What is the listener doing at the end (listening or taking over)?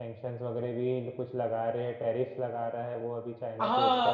taking over